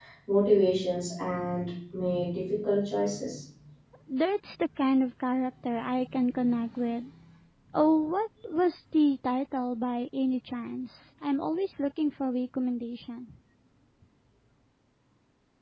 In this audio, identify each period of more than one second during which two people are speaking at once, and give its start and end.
none

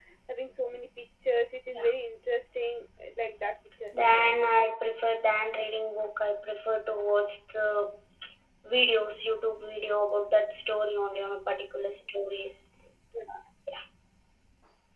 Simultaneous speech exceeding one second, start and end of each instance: none

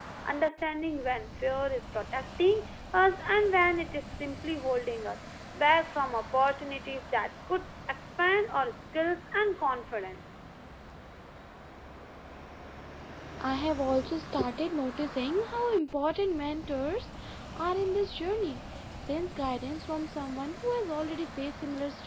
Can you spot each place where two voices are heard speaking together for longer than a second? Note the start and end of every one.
none

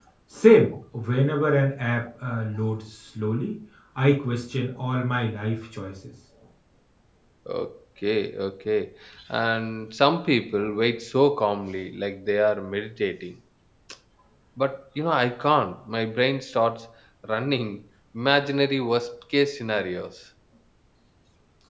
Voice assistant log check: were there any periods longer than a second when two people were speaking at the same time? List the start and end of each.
none

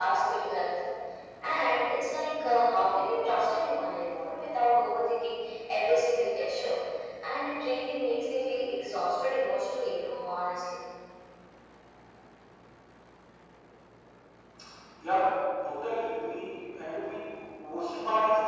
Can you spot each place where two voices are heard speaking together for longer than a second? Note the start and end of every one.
none

